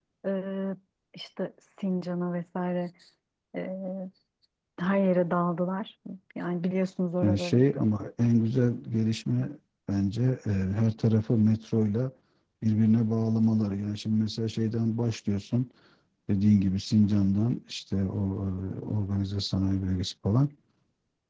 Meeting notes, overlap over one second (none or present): none